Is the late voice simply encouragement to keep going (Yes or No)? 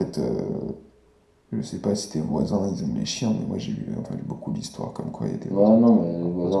No